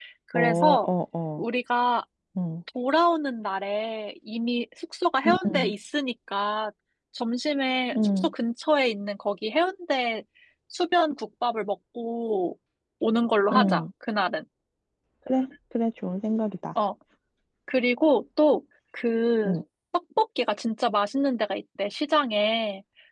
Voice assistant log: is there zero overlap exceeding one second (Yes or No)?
Yes